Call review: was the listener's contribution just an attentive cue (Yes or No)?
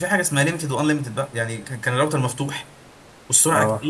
Yes